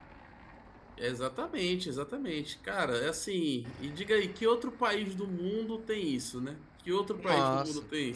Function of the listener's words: taking over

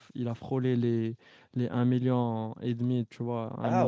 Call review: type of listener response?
taking over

